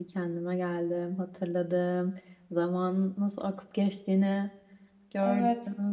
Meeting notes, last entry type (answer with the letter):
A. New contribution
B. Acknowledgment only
A